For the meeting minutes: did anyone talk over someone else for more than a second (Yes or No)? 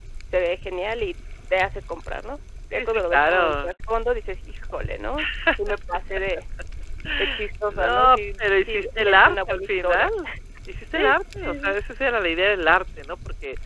Yes